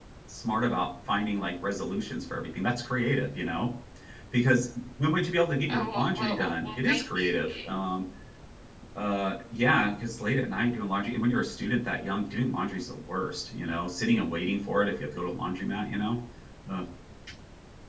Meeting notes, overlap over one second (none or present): present